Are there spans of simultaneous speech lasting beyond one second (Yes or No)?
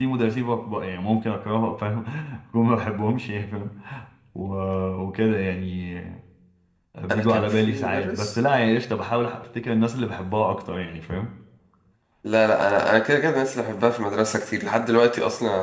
Yes